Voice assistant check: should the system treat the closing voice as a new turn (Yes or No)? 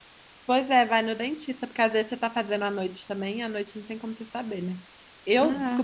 No